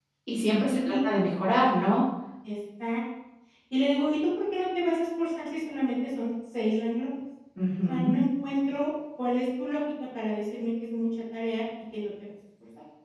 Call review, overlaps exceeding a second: none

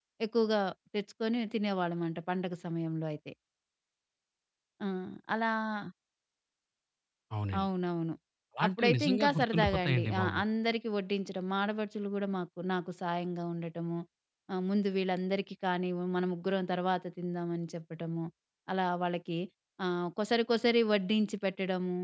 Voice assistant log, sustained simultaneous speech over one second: present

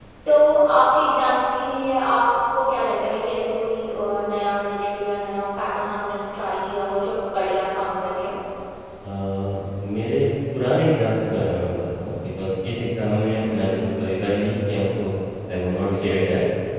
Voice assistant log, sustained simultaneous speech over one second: none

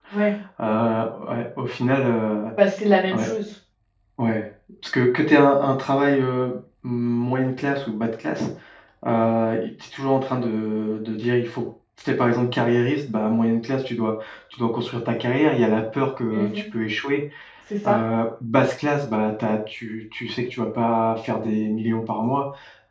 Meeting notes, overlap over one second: none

